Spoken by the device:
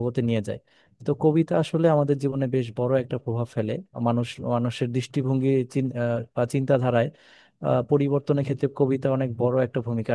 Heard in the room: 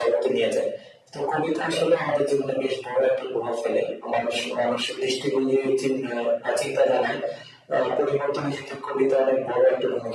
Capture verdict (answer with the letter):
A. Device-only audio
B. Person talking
A